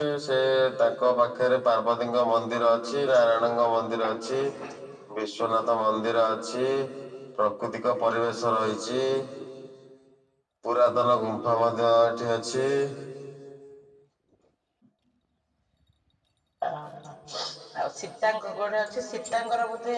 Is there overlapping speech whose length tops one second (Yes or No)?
No